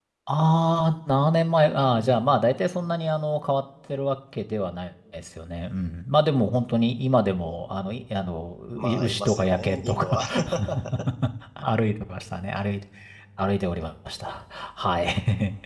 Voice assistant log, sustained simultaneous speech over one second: present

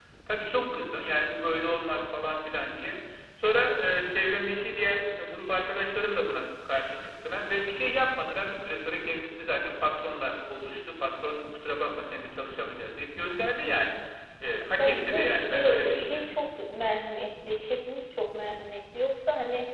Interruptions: present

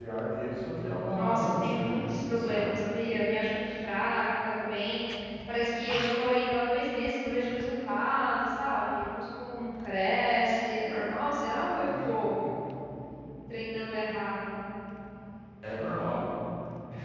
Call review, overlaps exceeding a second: present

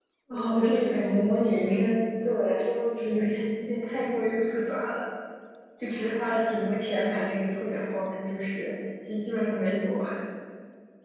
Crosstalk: present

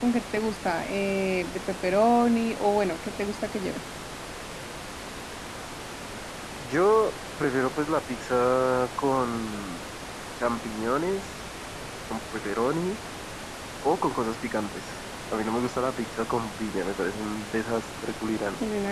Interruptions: none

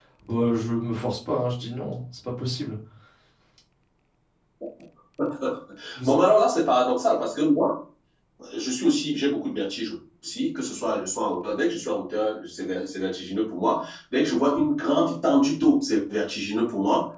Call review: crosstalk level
none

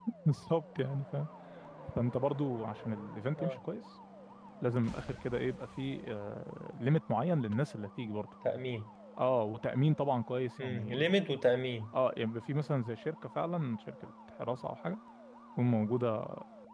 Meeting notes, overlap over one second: none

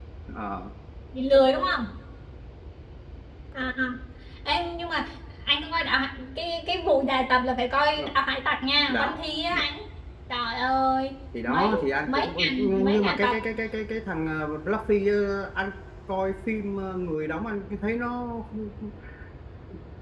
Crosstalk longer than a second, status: present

